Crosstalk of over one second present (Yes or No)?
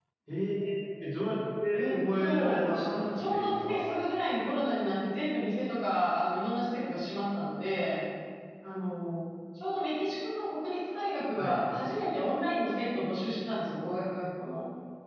Yes